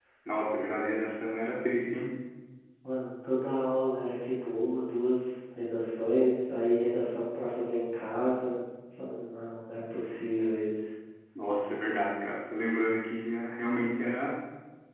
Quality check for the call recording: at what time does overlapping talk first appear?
none

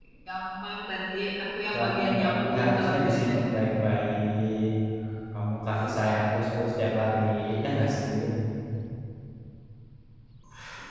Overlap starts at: 2 s

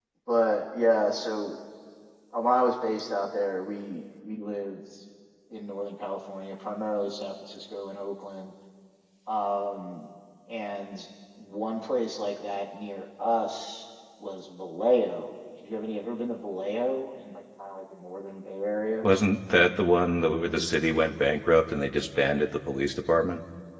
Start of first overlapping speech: none

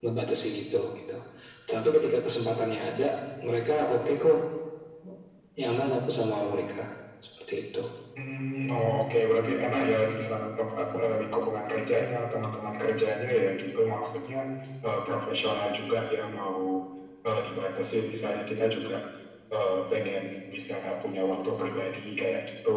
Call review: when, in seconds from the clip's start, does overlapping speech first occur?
none

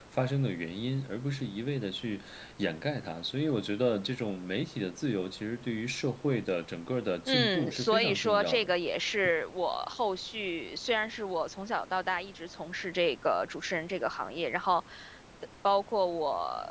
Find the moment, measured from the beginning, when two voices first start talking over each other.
7 s

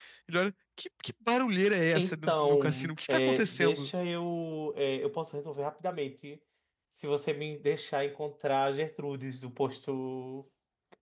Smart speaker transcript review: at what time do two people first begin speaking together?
2 s

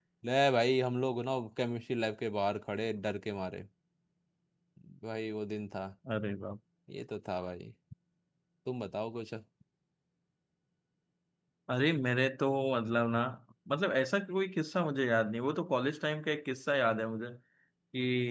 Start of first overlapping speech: none

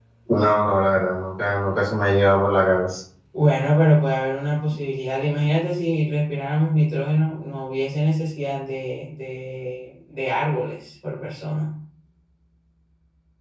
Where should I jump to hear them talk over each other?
none

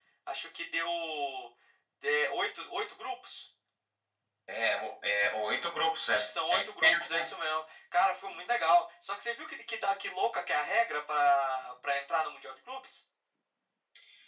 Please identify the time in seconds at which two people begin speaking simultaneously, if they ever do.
6 s

